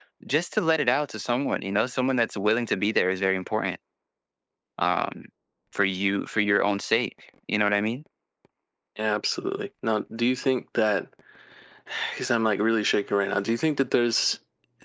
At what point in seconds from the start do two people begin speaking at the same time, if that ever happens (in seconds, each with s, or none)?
none